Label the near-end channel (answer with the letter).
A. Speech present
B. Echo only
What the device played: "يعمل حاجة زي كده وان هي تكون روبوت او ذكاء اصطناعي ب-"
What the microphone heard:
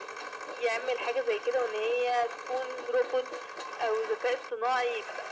B